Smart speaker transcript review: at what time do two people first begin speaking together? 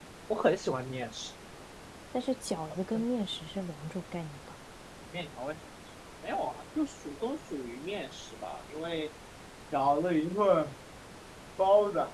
none

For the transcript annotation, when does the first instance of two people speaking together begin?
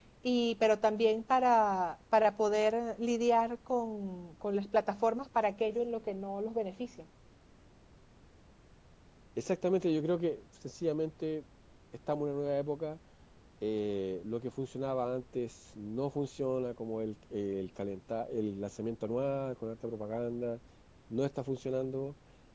none

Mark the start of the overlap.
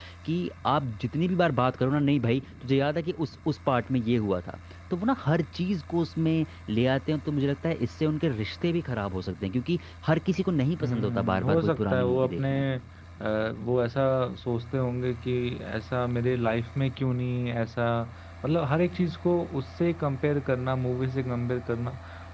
10.8 s

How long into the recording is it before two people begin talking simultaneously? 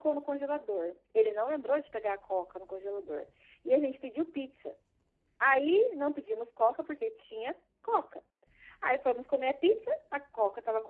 none

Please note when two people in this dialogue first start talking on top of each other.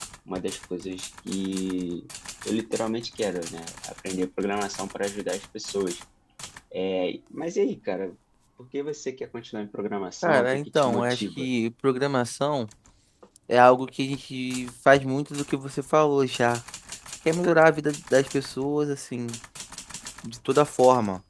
10.2 s

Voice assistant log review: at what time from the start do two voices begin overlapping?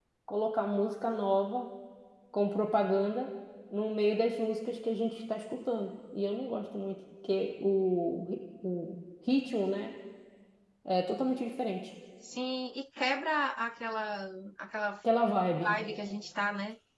none

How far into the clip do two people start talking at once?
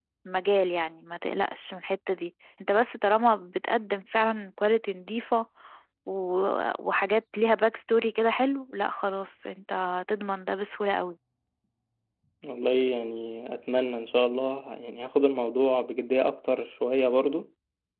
none

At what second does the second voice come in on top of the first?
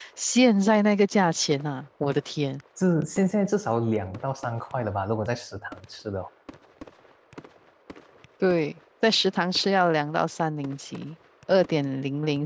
none

